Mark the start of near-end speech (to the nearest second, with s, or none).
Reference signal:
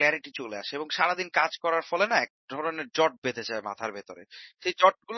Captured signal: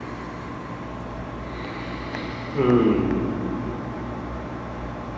3 s